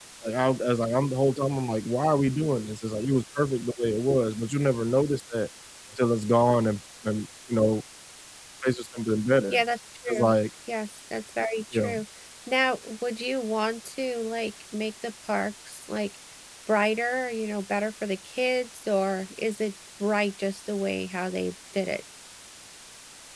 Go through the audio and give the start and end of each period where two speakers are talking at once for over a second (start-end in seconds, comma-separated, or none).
none